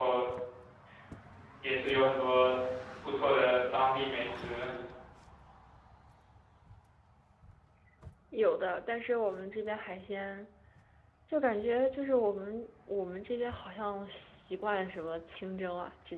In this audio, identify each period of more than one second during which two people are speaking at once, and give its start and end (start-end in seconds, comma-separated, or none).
none